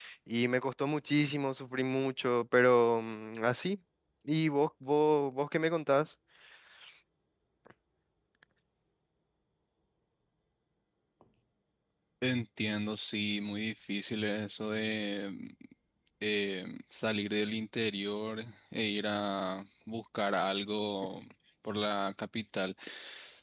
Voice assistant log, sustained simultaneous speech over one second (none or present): none